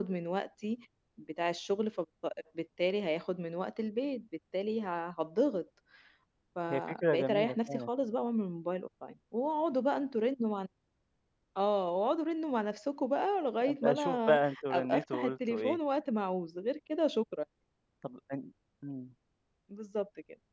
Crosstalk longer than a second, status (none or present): present